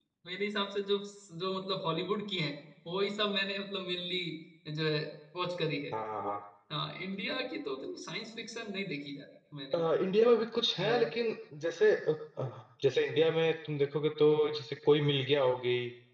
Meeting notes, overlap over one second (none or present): none